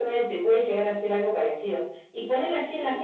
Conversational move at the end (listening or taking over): listening